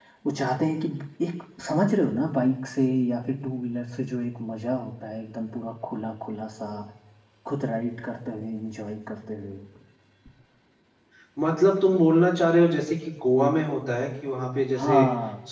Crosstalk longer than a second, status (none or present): none